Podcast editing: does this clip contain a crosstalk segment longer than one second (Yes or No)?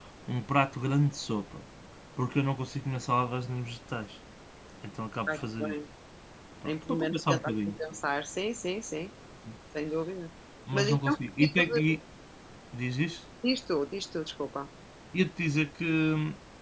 Yes